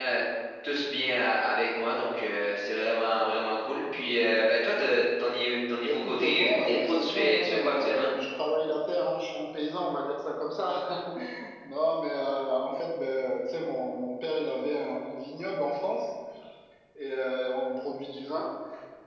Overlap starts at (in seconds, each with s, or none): 5.8 s